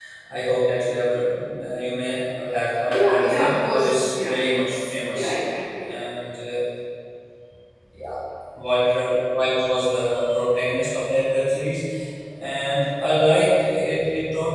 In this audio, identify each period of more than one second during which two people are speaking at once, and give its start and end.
2.9-4.4

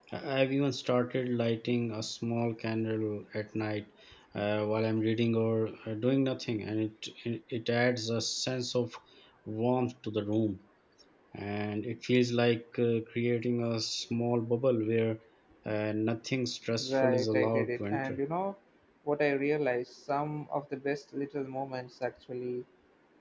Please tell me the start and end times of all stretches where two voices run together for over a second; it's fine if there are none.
16.8-18.2

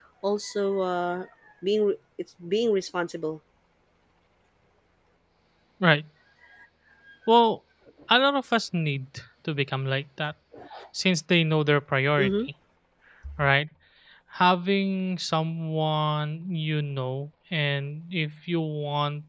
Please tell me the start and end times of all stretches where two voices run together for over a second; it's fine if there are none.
none

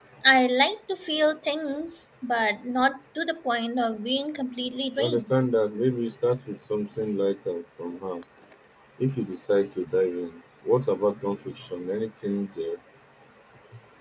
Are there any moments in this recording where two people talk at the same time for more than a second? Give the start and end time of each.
none

